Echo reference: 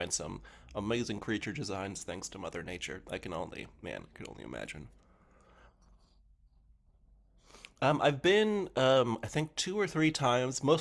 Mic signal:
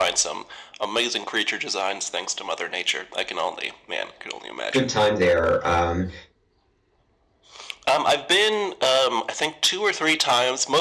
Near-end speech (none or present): present